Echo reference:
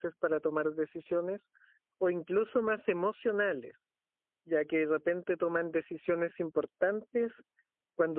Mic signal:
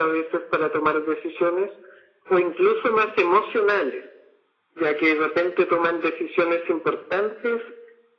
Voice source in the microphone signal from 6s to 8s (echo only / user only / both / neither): echo only